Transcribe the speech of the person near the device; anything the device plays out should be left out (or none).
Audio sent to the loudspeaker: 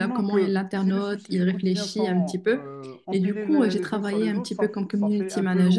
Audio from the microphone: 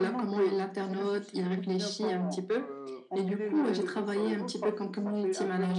none